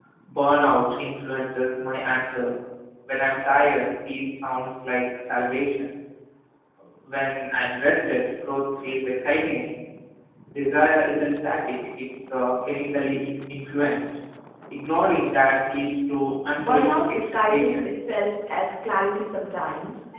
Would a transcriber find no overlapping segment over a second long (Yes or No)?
No